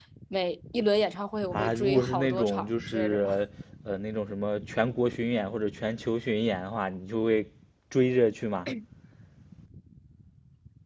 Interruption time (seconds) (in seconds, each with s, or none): 1.5 s